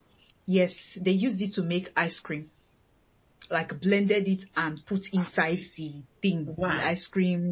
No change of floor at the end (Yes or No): Yes